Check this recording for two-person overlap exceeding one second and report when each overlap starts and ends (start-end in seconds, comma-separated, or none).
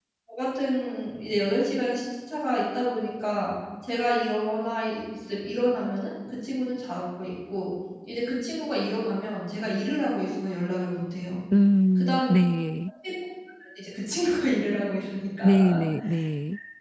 none